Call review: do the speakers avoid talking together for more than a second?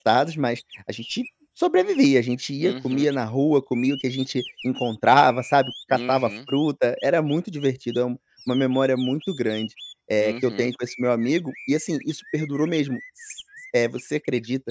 Yes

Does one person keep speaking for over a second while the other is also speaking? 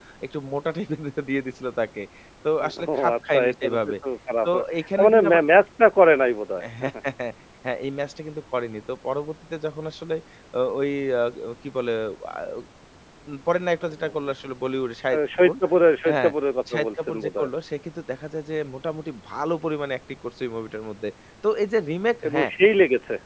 Yes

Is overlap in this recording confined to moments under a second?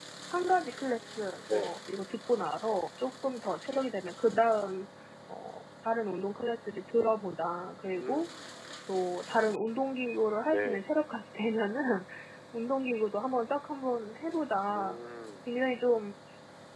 Yes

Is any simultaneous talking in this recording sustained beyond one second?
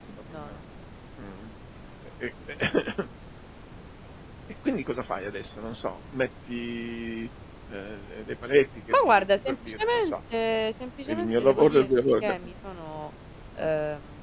Yes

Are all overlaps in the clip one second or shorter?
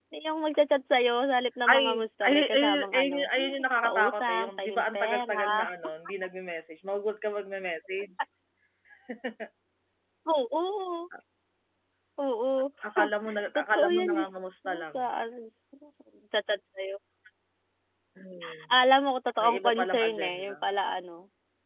No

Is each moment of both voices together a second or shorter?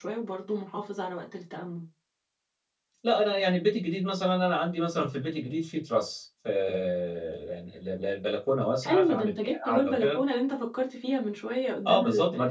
No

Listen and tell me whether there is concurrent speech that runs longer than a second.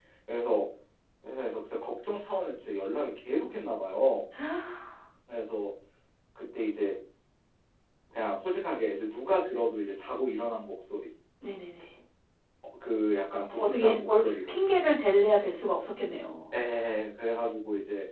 Yes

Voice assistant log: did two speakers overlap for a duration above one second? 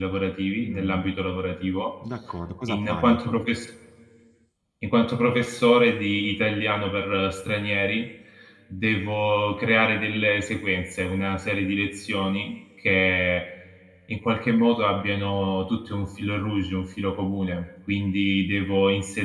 No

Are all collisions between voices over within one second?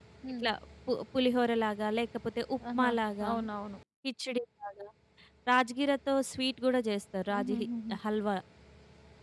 Yes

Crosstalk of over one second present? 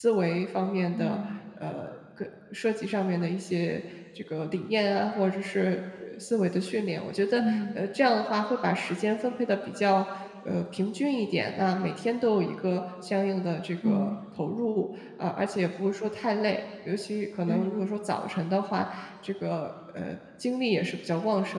No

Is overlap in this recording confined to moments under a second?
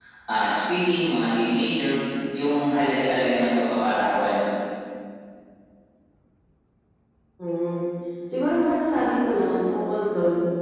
Yes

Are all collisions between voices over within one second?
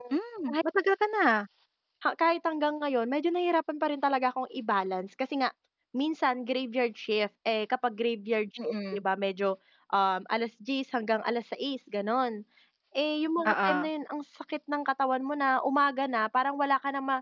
Yes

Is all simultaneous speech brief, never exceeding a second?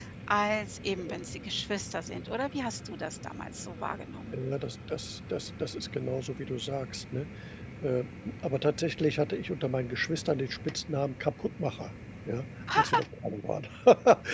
Yes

